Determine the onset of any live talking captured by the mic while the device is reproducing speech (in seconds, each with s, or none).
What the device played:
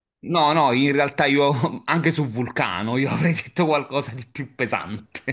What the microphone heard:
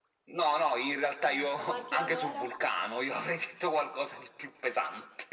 1.3 s